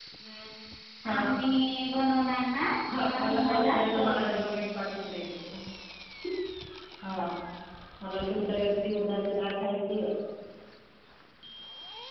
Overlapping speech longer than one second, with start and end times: 2.9-4.5

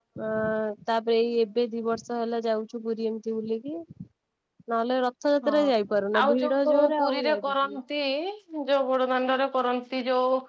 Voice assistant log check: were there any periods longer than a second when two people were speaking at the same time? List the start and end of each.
6.2-7.8

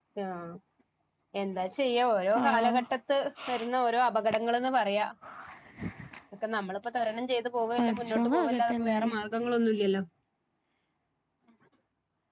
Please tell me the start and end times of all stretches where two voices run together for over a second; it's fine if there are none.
7.8-9.1

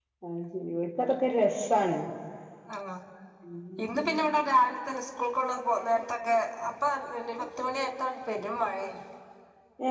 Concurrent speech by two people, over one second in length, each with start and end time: none

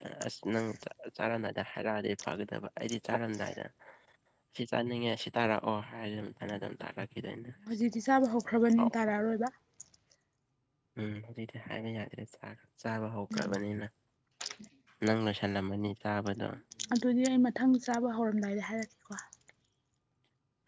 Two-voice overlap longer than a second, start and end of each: none

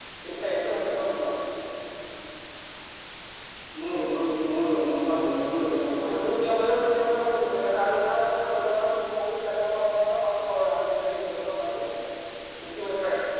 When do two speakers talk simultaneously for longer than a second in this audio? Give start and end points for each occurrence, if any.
none

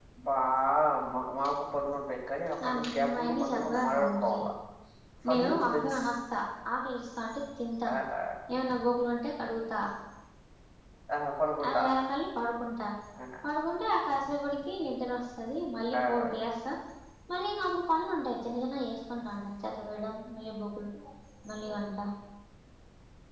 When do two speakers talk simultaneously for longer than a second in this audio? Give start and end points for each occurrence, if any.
2.9-4.4

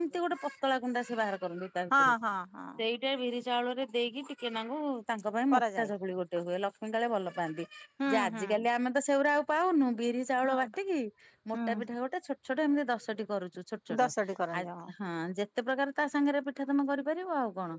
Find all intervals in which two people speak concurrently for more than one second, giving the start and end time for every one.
none

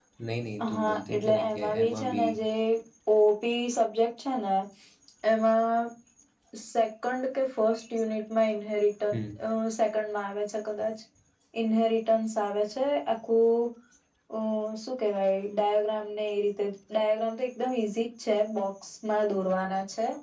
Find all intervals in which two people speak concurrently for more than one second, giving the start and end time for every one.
0.7-2.3

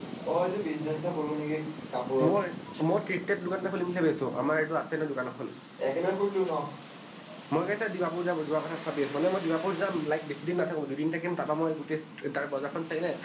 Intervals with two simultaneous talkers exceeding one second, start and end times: none

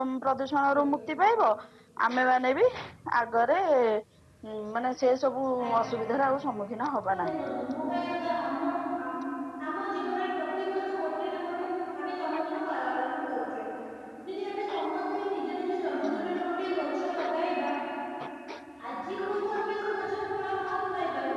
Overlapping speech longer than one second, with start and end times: none

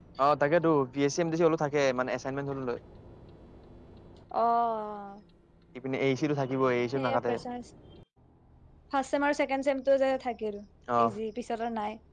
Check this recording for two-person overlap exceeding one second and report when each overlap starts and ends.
none

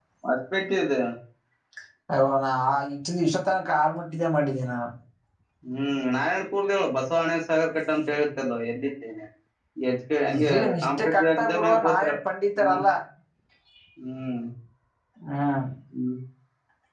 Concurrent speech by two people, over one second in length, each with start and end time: 10.4-12.1

